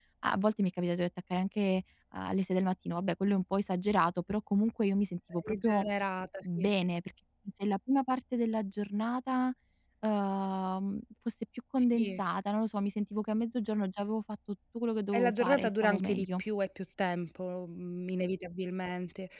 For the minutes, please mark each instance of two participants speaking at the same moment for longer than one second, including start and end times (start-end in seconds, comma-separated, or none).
15.1-16.4